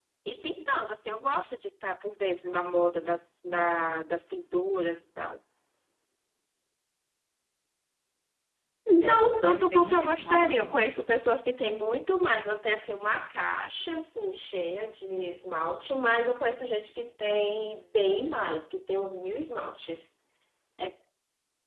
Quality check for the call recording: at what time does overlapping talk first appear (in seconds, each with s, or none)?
9.0 s